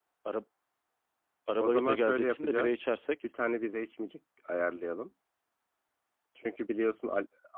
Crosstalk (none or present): present